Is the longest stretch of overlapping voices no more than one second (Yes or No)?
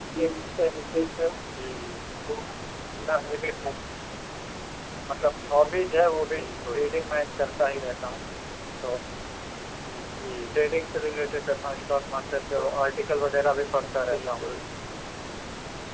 Yes